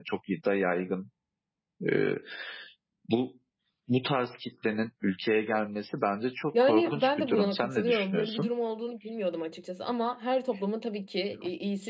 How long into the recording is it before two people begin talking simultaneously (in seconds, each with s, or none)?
6.5 s